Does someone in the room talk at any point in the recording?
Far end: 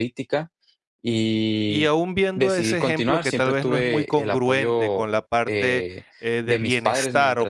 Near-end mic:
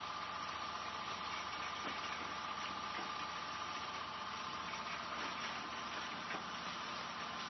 No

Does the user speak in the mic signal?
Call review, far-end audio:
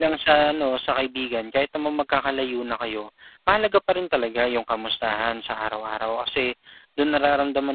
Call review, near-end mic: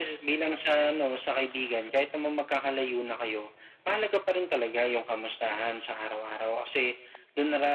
No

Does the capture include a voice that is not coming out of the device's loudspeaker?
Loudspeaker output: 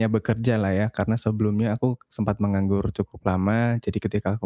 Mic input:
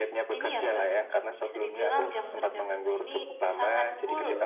Yes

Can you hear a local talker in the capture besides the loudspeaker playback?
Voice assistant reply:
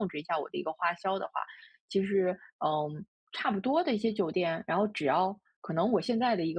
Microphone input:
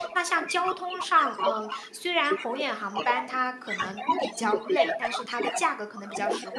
Yes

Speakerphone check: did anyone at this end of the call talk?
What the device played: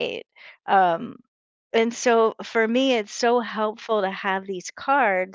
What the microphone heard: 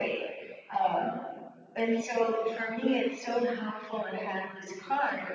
No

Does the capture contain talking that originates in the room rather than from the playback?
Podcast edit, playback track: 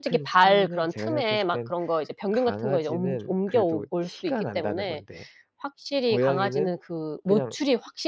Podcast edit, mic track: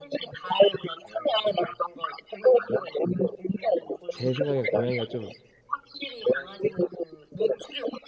Yes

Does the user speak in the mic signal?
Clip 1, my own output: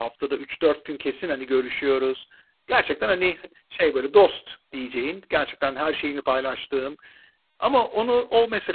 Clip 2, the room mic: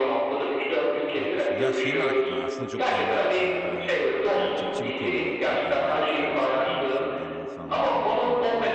Yes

